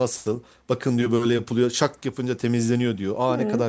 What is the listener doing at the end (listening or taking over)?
listening